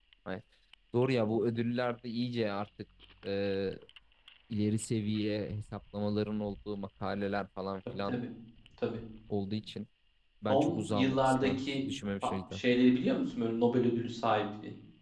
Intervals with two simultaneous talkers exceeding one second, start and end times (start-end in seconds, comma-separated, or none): 10.5-11.8